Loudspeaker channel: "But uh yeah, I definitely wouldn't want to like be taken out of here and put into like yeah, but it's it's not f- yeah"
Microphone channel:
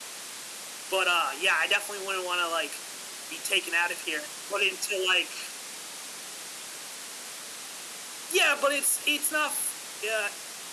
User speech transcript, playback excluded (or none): none